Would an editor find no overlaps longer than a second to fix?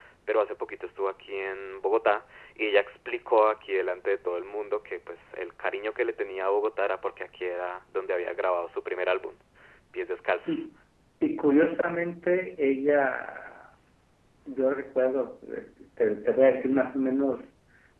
Yes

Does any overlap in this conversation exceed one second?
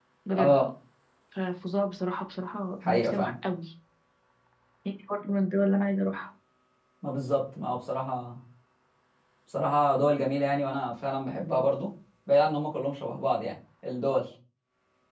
No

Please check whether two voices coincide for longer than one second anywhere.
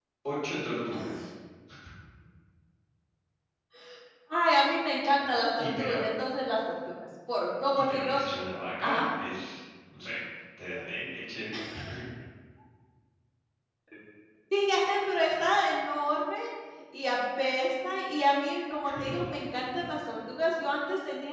No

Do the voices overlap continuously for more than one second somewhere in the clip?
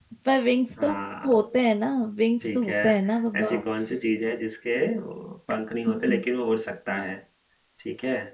No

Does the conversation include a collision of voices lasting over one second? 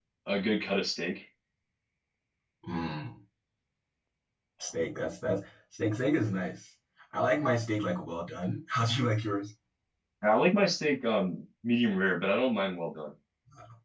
No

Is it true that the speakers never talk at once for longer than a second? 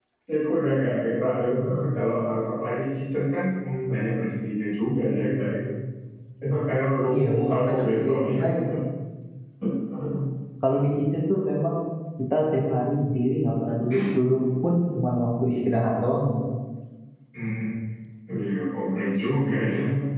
No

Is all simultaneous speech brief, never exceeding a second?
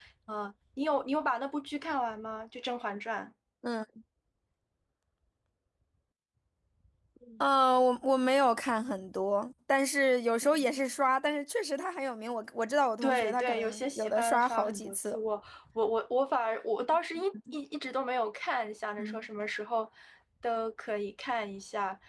No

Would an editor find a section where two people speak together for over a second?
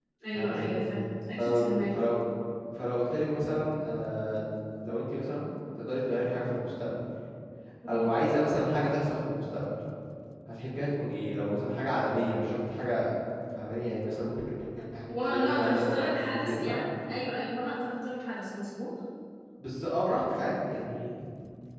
Yes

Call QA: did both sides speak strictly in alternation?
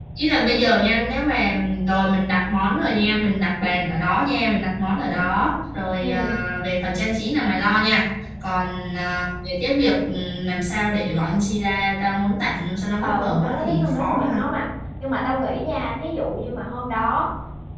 No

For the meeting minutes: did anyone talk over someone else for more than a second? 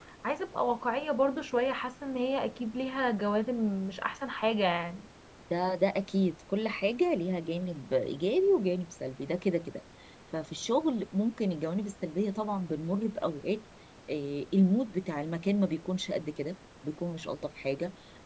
No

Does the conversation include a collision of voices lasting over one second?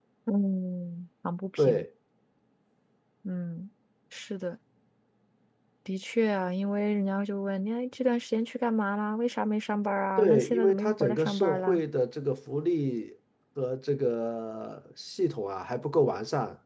Yes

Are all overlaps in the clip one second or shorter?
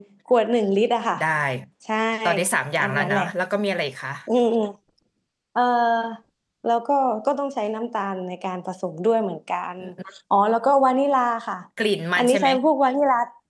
Yes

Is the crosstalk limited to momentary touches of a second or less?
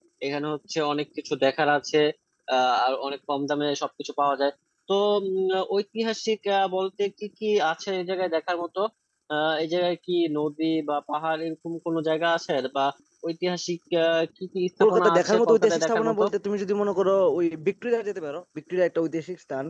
No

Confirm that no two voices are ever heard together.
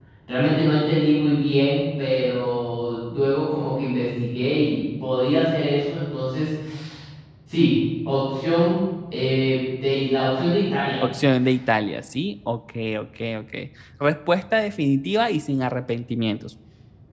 Yes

